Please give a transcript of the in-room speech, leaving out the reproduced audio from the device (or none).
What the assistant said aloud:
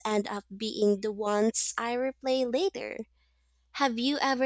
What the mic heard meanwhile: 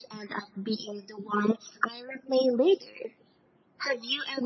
none